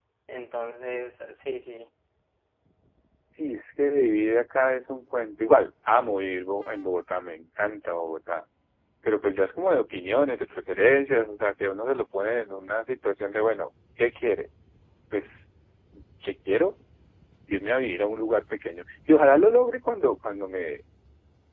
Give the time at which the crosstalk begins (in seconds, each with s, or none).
none